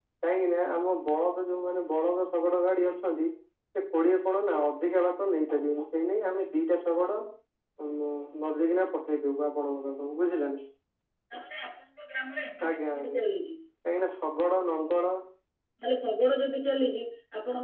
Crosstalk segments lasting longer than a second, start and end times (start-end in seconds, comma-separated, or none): none